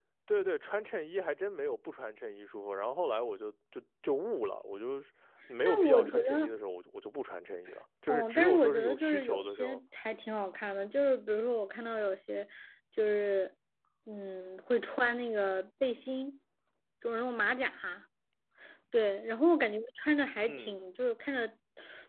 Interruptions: present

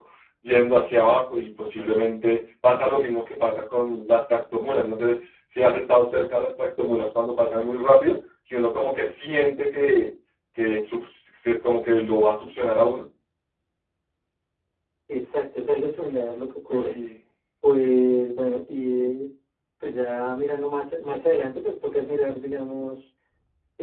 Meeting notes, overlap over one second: none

